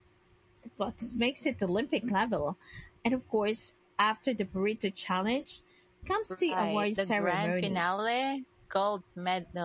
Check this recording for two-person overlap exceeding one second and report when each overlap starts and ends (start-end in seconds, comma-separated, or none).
6.5-7.8